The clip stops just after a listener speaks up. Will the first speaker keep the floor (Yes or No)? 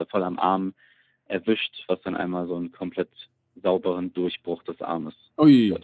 No